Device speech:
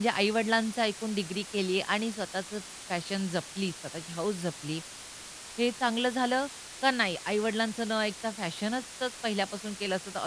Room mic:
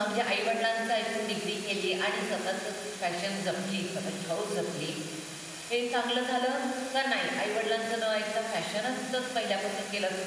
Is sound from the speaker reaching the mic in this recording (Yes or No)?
Yes